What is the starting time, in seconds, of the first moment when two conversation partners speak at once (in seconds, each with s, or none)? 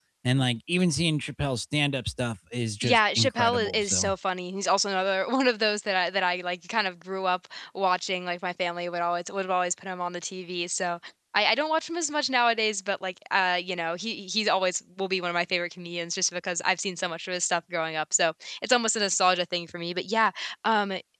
2.8 s